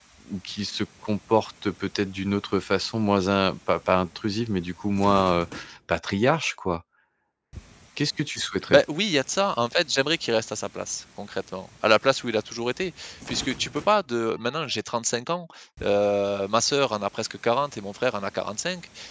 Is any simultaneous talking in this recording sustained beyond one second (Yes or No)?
No